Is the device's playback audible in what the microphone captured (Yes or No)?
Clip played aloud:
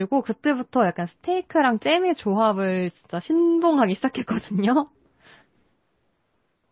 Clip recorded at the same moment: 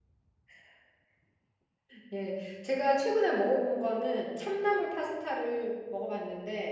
No